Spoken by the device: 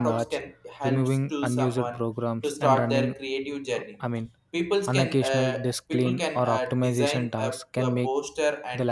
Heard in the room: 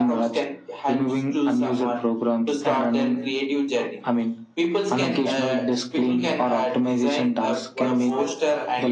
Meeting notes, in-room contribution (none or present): present